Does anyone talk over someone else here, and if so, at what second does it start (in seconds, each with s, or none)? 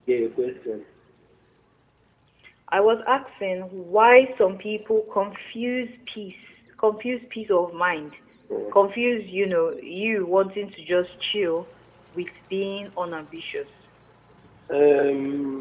none